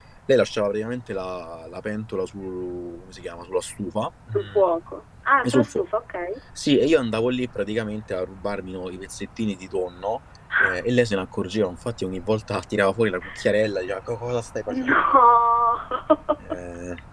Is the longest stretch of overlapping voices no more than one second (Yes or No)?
Yes